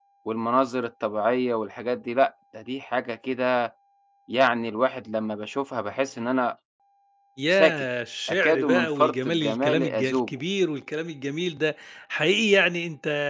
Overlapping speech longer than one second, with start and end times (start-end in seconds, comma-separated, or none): 8.3-10.3